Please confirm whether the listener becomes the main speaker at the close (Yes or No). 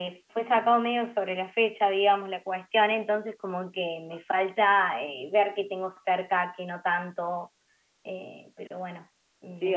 Yes